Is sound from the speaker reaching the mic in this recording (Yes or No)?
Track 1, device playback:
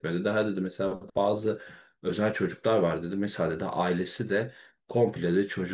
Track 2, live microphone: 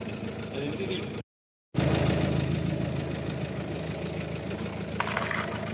No